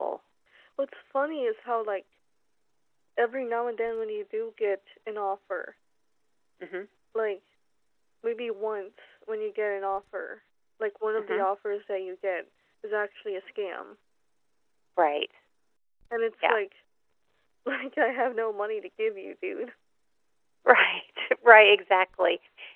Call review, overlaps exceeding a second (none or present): none